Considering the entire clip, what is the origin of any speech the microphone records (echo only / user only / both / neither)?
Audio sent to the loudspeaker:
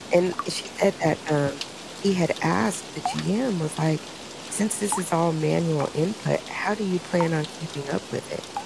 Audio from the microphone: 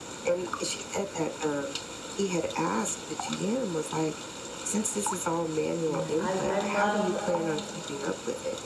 both